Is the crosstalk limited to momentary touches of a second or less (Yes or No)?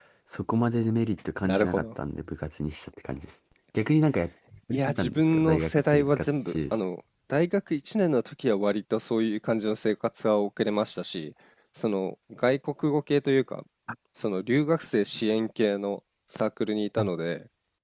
No